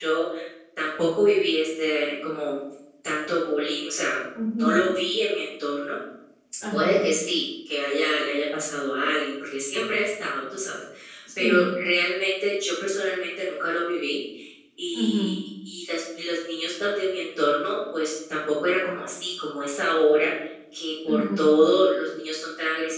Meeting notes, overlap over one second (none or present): none